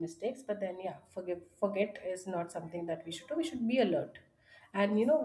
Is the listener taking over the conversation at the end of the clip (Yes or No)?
No